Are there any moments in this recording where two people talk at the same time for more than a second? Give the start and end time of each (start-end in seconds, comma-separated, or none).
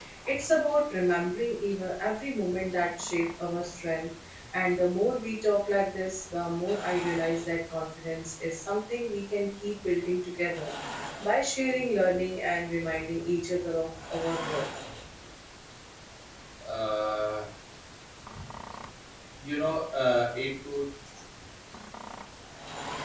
none